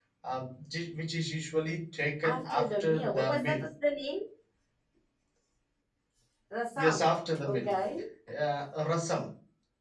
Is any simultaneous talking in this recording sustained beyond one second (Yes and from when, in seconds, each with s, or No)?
Yes, from 2.2 s